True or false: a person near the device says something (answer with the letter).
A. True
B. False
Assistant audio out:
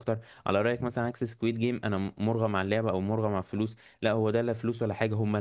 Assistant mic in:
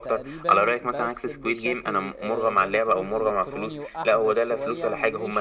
A